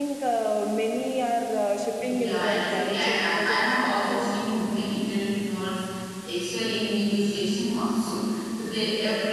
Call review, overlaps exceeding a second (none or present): present